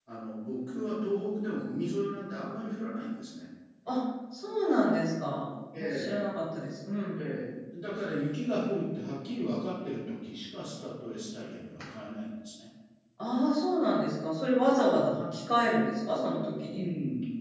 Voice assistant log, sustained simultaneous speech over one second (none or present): none